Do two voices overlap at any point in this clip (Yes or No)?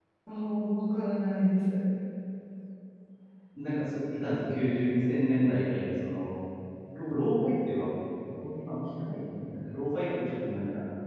No